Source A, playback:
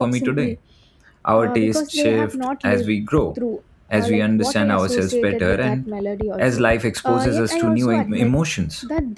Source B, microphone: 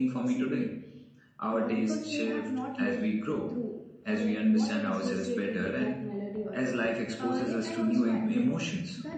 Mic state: echo only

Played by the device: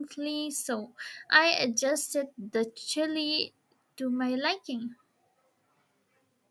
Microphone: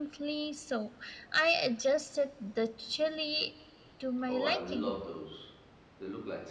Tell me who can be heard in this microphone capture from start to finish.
both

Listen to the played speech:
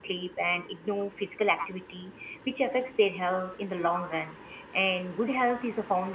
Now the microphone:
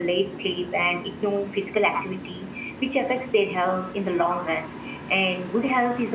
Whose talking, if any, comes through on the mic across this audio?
echo only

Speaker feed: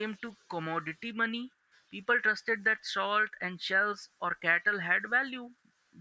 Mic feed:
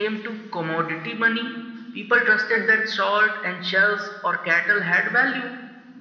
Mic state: both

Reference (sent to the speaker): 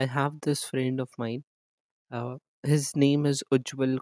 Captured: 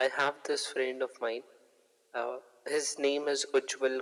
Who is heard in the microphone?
echo only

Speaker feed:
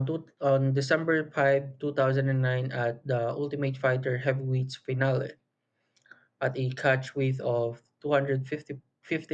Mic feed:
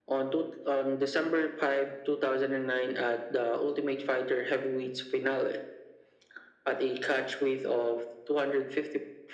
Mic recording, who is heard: echo only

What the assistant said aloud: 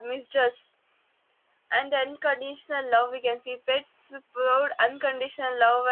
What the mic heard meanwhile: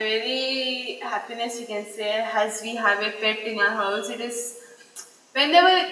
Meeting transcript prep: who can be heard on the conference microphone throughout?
user only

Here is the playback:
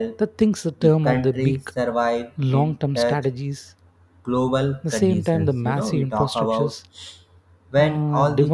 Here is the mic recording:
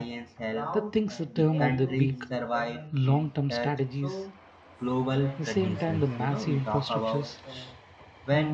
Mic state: both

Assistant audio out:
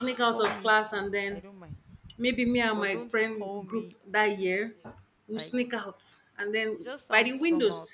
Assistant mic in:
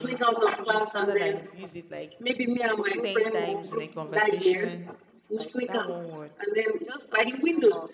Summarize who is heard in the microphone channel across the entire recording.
both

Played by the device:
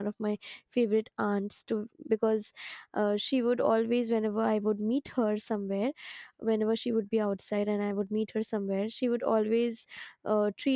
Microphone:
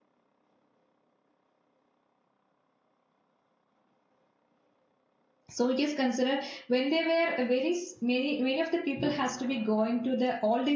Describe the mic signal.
user only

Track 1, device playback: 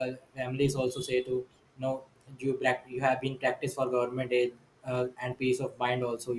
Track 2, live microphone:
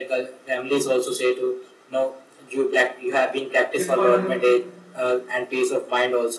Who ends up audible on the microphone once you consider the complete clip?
both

